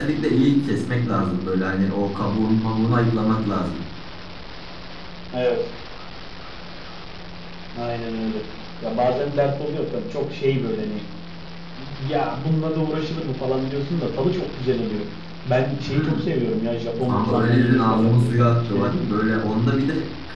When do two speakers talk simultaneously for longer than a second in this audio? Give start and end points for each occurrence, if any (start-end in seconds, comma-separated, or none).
17.1-19.1